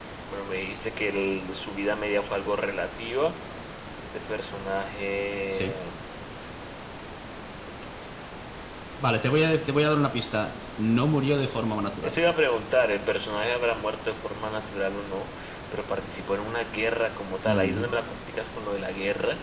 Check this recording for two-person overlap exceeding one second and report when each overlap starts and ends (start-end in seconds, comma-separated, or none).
none